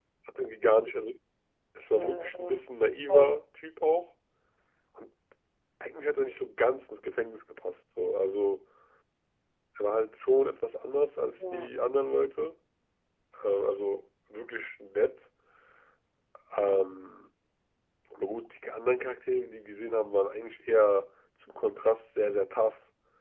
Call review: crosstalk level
present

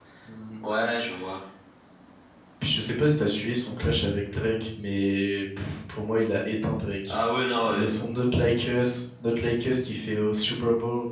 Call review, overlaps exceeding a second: none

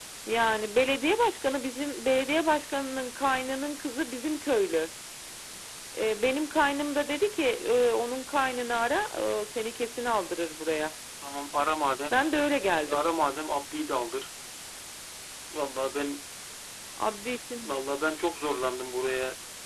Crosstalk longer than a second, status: none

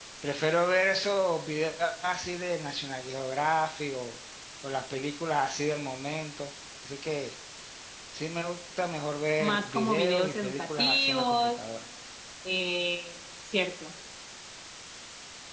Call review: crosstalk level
present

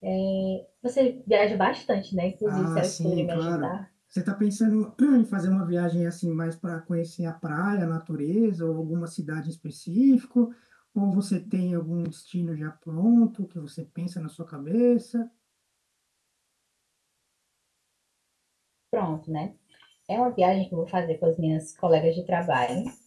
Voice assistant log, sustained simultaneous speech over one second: present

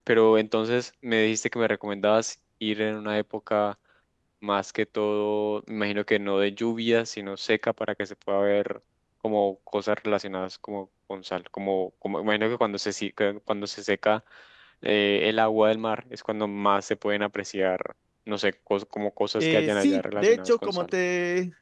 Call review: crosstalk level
present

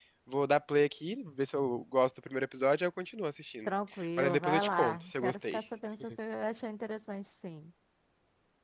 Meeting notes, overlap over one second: present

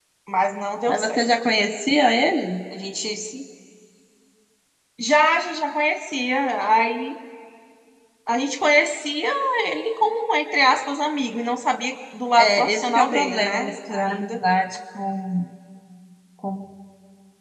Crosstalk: present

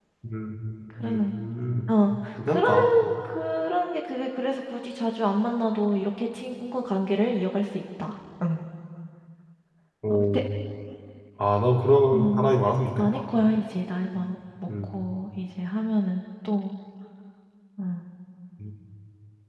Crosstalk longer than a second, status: none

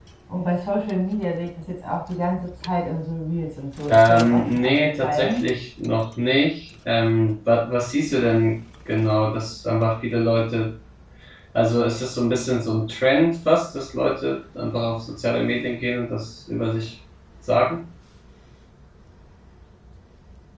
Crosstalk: present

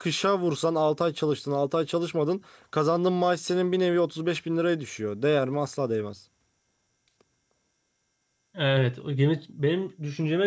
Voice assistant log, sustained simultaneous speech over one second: none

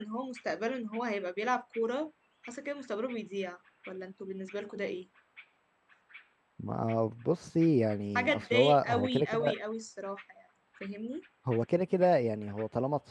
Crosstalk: present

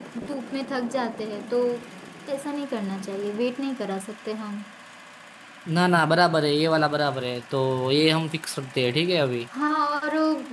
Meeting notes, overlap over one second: none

